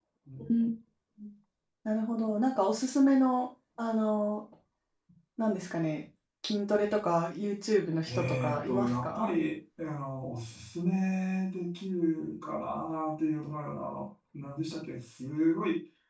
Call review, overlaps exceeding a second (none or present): present